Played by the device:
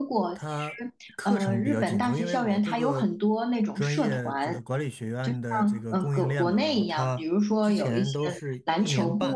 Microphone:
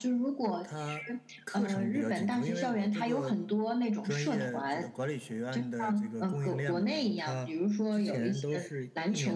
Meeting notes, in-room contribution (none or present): none